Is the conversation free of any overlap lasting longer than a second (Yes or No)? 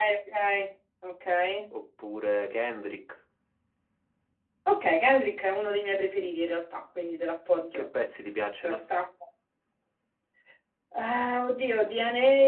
Yes